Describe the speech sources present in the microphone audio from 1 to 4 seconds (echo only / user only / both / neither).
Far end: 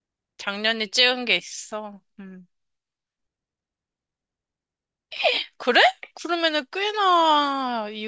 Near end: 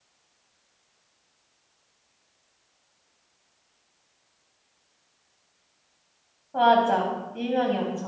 neither